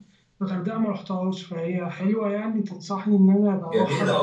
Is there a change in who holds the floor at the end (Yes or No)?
Yes